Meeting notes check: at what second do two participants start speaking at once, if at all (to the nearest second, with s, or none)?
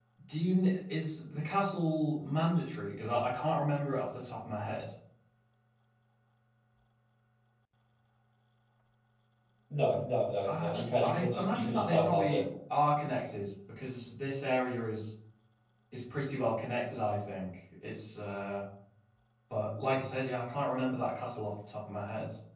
10 s